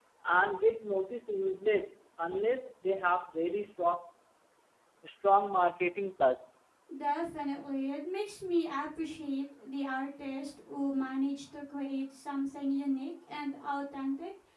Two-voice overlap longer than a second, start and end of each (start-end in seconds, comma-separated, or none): none